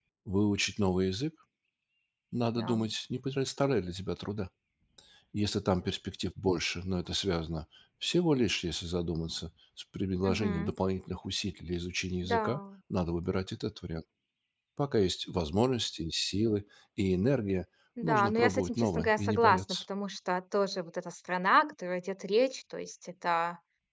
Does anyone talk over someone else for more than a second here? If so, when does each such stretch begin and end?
18.0-19.6

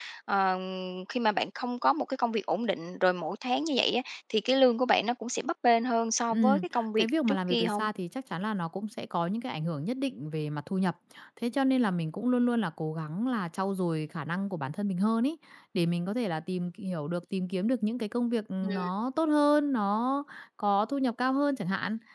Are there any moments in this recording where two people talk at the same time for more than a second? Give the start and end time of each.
6.3-7.9

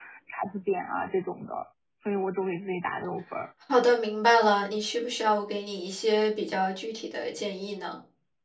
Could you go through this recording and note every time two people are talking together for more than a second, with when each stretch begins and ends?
none

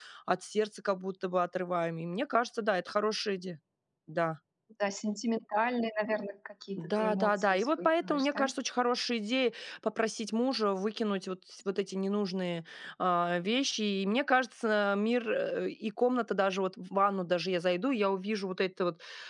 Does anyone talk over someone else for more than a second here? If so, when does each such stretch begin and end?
6.8-8.5

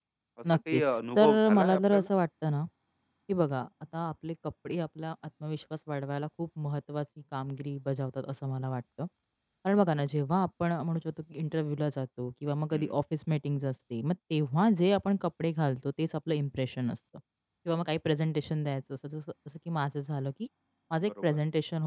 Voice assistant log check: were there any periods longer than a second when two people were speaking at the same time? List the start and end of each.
0.7-2.1

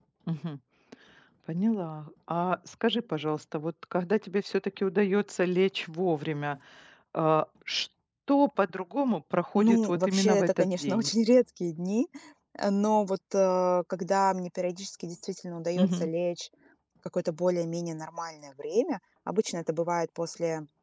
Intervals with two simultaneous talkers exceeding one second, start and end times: 9.6-11.1

